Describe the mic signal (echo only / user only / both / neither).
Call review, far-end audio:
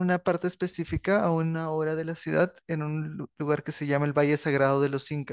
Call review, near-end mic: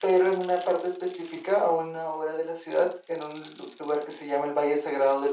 echo only